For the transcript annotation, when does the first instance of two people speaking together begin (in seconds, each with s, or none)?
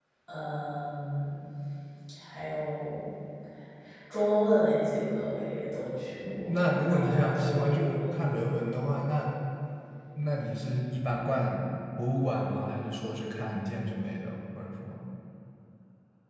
6.3 s